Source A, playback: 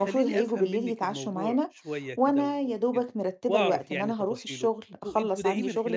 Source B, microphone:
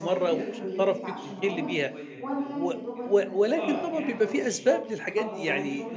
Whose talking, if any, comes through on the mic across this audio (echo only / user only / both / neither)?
both